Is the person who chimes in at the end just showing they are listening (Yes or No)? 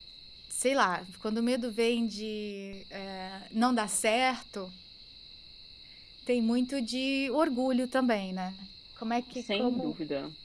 No